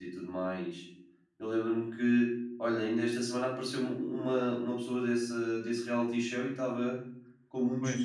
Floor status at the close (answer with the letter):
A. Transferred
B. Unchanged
B